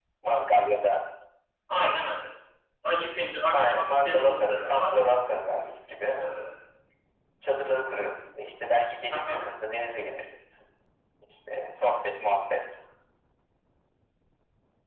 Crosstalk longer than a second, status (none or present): present